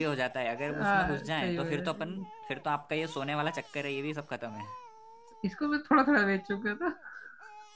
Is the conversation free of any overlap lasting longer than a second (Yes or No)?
No